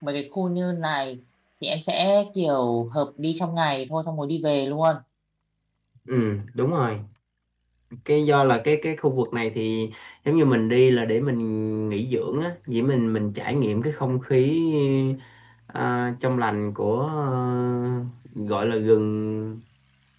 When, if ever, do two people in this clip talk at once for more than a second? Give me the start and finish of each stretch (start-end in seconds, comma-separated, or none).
none